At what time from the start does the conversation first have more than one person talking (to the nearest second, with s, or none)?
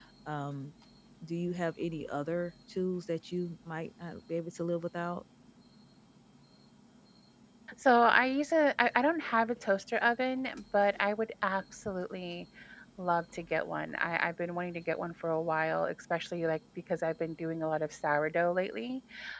none